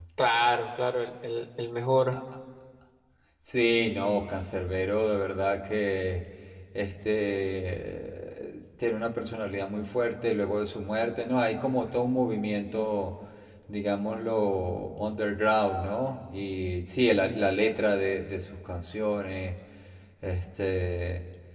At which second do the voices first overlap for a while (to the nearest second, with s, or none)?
none